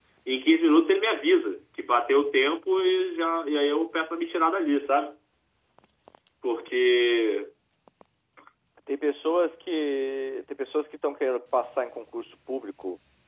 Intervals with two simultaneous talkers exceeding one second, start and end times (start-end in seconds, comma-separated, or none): none